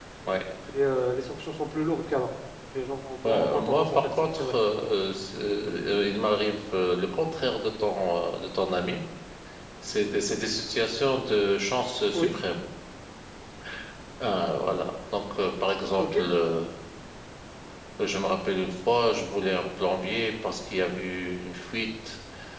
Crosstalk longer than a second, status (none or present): present